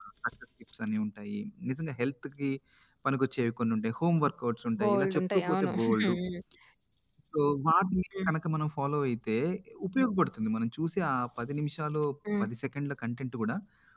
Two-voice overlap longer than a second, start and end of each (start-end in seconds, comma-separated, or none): 4.8-6.1